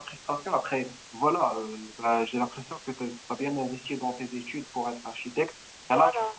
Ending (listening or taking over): listening